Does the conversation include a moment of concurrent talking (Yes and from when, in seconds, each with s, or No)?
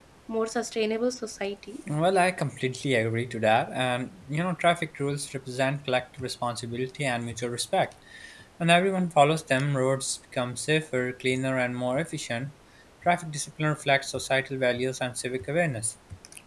No